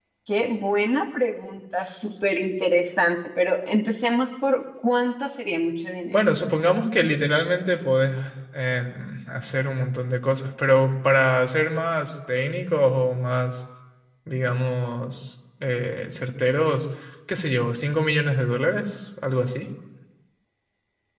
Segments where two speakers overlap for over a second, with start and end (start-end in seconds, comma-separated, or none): none